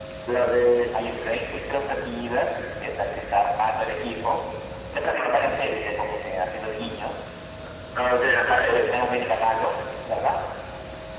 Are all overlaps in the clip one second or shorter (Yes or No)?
Yes